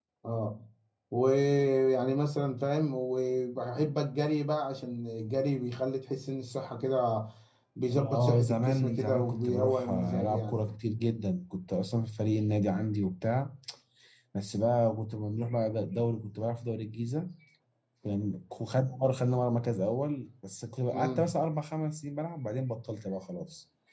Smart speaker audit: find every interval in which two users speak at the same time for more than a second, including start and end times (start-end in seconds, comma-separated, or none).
7.9-10.6